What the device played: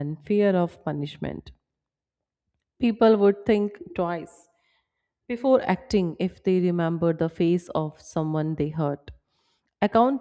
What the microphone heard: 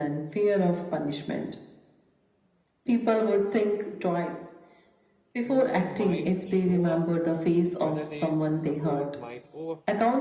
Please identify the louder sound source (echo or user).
echo